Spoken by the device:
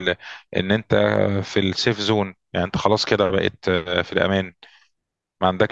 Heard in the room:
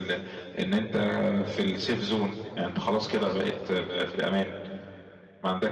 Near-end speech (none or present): none